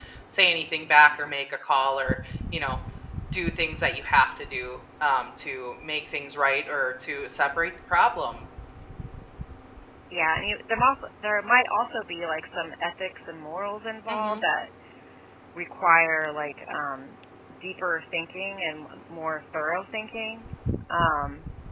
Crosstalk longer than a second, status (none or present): none